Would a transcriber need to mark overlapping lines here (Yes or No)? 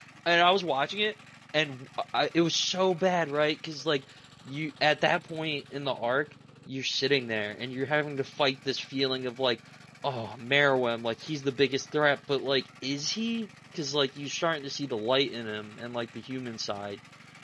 No